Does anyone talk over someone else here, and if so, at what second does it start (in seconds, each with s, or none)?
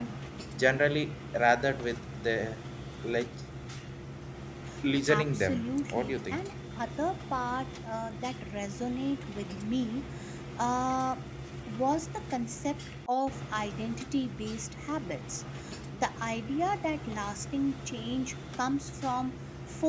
5.1 s